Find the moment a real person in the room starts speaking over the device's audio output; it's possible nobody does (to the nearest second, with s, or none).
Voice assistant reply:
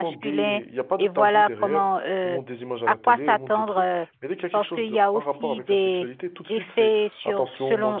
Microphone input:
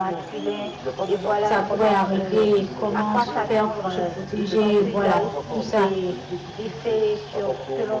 1 s